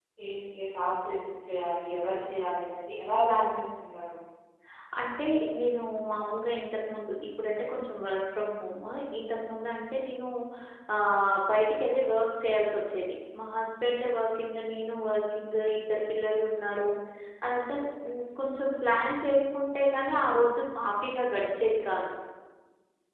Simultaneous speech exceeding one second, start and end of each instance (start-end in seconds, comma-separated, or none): none